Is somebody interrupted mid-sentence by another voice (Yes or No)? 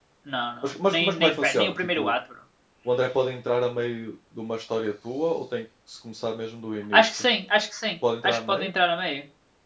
Yes